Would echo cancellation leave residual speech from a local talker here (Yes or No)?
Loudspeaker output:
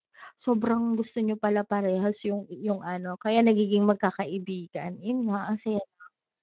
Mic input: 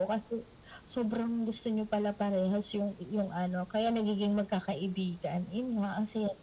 No